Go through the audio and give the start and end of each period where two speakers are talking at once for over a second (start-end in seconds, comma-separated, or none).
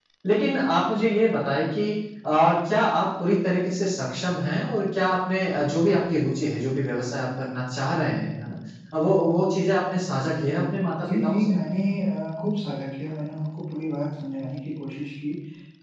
none